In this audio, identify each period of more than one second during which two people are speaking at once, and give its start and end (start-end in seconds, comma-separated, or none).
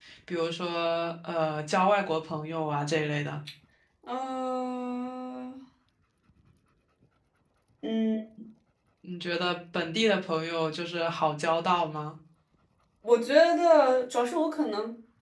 none